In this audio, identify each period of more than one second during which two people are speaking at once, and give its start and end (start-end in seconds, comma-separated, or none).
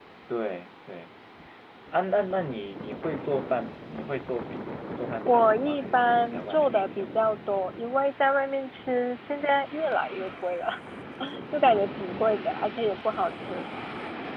5.2-7.1